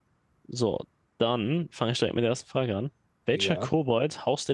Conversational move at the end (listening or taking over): listening